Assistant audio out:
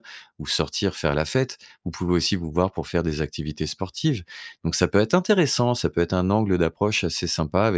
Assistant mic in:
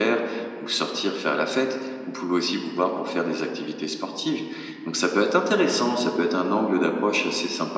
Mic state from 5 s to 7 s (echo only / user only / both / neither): echo only